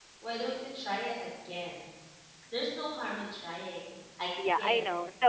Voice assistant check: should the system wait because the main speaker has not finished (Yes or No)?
No